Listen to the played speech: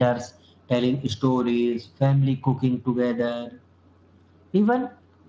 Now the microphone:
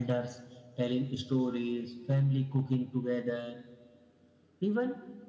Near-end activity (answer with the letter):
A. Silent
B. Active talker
A